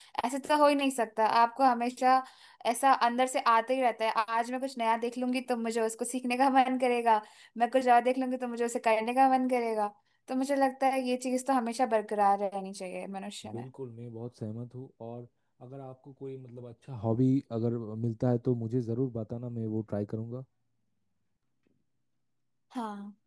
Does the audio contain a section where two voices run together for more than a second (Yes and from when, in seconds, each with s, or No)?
No